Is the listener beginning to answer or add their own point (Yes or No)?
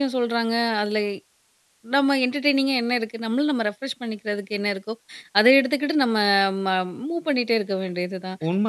Yes